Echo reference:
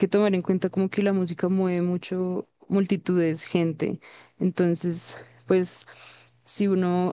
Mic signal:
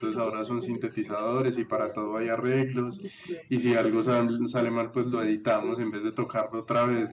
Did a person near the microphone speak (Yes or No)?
Yes